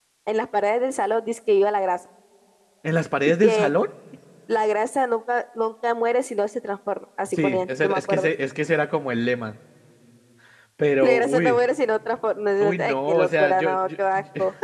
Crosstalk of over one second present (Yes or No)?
Yes